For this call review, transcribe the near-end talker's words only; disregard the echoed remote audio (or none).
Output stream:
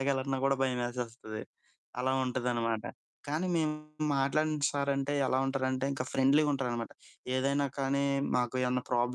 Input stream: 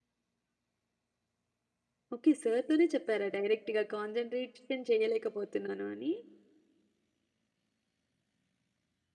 ఓకే, సారుతోనే చెప్పారా డైరెక్ట్‌గా కాన్సంట్రేషన్ చేయలేకపోతున్నాను అని.